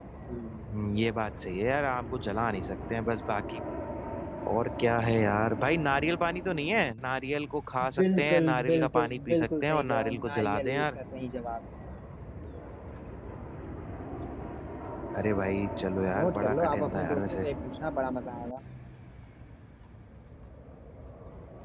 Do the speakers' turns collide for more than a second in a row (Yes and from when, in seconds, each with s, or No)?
Yes, from 8.0 s